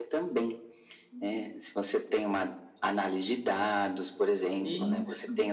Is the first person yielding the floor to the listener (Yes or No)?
No